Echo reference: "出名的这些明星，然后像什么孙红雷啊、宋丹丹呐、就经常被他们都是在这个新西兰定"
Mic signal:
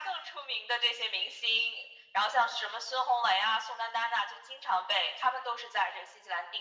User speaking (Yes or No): No